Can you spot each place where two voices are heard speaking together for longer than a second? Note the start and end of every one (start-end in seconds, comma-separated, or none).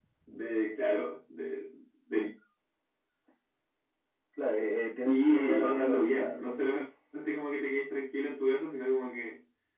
5.0-6.6